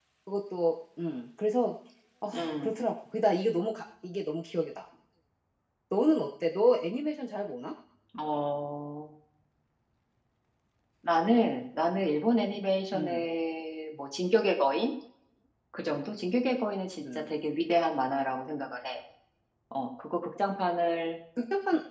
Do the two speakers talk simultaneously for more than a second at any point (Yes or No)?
No